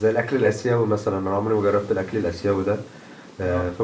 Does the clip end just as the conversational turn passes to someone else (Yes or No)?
No